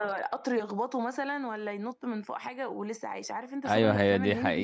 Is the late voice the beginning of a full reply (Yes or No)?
Yes